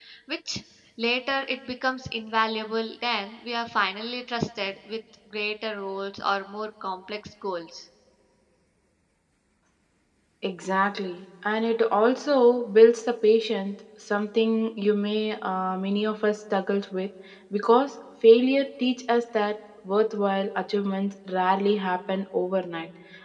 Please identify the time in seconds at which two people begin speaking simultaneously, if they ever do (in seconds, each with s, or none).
none